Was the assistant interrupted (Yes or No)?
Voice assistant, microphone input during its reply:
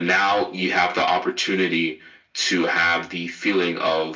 No